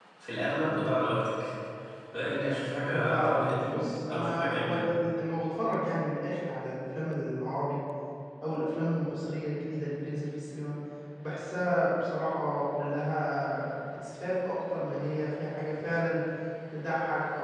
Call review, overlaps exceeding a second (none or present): present